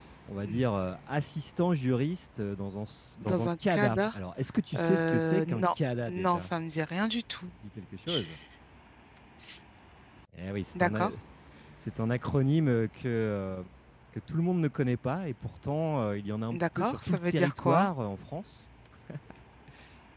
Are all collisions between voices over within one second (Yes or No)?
No